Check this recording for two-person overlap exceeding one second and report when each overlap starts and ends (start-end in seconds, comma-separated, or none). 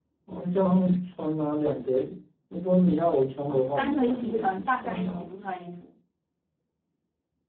3.5-5.3